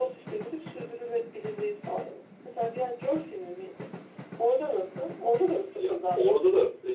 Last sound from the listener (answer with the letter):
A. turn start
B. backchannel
A